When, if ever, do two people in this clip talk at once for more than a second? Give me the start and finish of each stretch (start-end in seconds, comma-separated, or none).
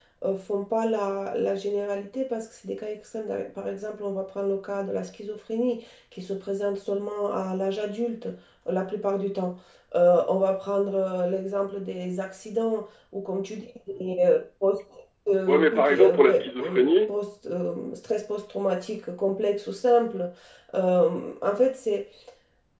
15.5-17.1